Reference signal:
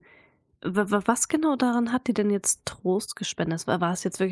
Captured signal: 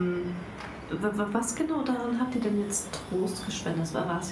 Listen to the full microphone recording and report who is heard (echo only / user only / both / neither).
echo only